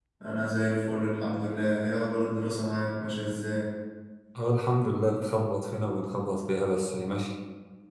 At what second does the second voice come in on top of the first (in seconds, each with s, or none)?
none